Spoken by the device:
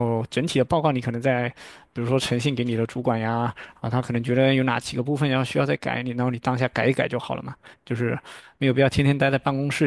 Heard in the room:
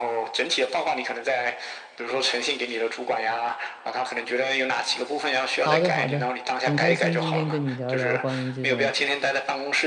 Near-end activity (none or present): present